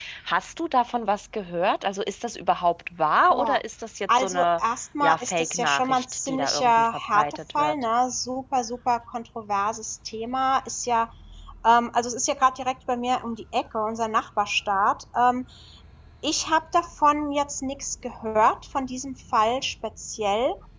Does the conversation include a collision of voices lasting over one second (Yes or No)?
Yes